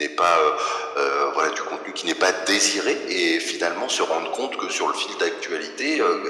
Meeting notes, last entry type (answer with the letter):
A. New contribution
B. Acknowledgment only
B